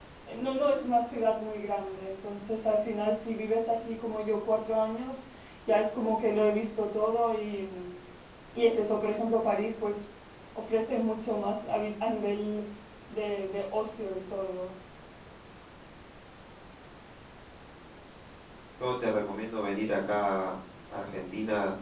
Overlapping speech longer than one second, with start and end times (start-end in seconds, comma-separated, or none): none